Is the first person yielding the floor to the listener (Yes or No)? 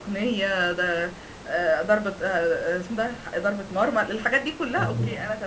Yes